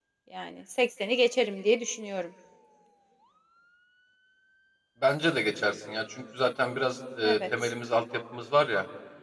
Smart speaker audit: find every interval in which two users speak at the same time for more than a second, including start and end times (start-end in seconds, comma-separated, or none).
none